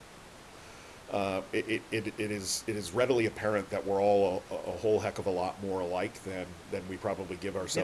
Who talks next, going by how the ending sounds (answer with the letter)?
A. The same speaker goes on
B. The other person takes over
B